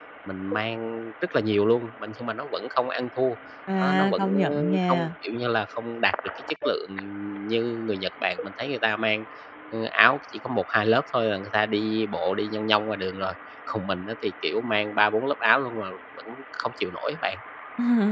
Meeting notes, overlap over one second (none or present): present